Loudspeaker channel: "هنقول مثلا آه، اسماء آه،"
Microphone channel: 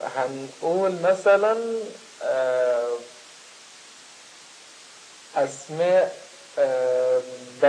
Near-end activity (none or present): none